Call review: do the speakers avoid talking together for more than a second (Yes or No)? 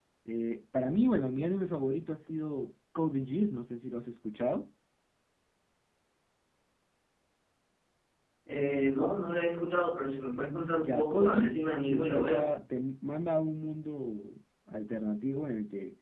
No